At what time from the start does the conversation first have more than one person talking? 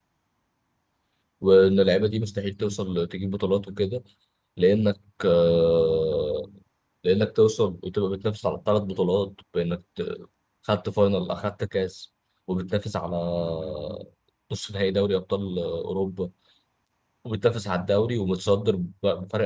none

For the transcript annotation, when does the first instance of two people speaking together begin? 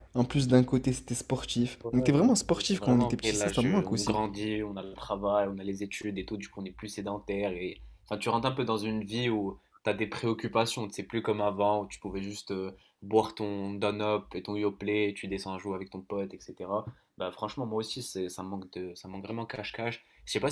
1.8 s

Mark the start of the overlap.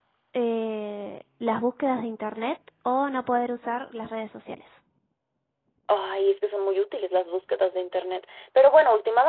none

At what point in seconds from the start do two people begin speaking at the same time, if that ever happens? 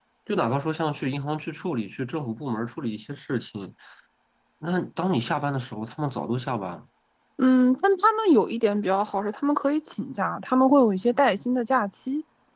none

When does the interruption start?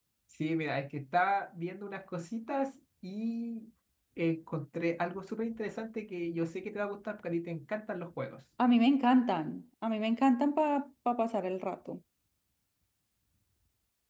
none

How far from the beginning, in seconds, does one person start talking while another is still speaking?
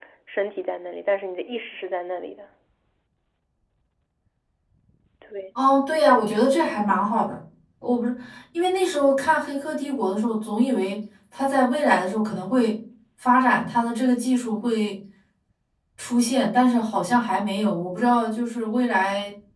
none

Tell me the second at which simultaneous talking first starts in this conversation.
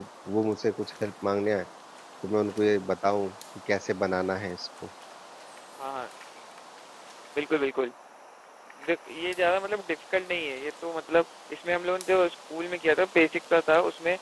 none

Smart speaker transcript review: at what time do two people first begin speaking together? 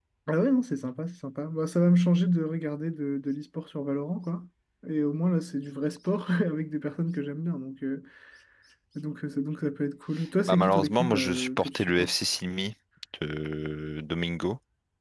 10.4 s

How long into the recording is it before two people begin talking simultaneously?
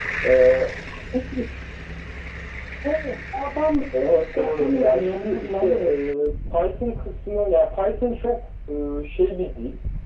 3.9 s

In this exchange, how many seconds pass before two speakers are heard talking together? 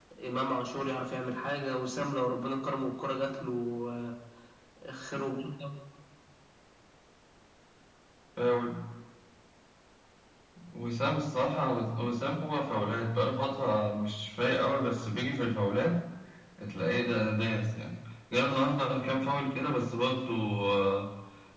none

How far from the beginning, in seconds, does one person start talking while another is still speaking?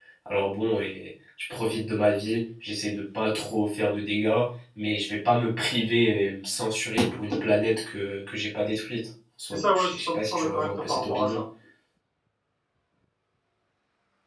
9.4 s

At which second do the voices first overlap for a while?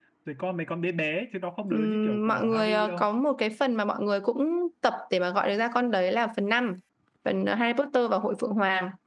1.7 s

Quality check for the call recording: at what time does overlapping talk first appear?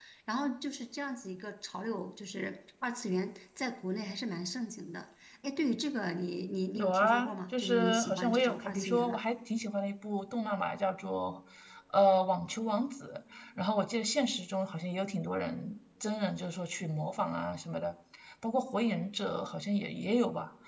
6.7 s

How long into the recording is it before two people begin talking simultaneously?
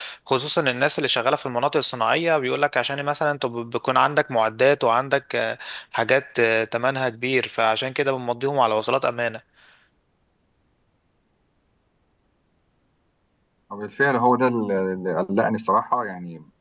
none

